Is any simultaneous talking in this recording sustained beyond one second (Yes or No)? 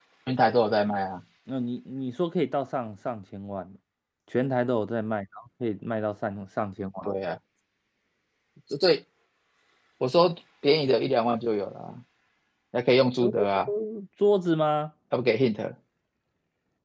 No